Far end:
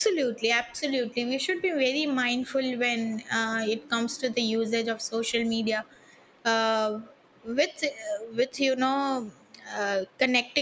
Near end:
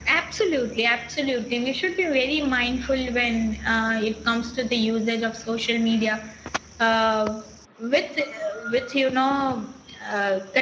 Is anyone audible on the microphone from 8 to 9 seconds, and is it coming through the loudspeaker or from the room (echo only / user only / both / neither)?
echo only